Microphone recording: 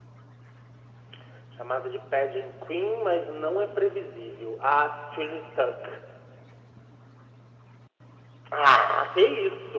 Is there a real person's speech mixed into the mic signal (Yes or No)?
No